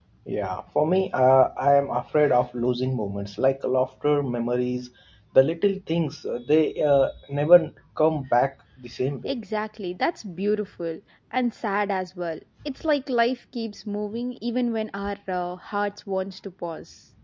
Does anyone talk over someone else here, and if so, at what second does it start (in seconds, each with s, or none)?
none